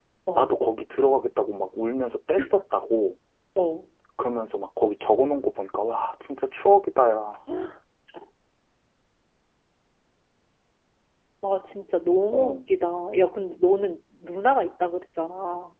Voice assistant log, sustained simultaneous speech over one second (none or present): none